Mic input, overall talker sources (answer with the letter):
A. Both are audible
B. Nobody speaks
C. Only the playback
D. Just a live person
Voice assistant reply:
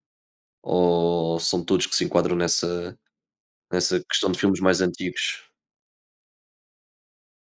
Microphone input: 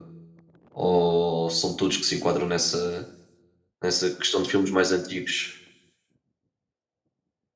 C